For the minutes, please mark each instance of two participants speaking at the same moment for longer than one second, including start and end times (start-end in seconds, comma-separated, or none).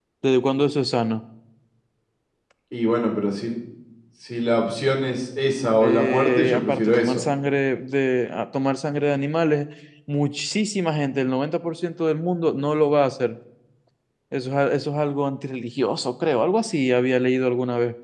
5.8-7.2